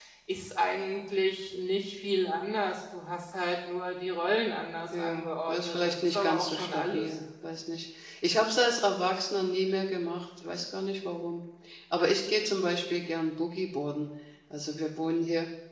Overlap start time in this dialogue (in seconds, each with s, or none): 4.9 s